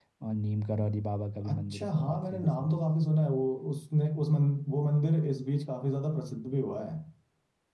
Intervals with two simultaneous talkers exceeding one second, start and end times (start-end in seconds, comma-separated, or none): 1.5-2.8